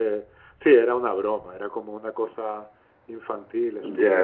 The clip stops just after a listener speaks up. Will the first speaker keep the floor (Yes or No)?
No